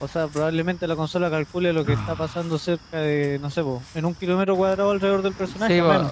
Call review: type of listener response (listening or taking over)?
taking over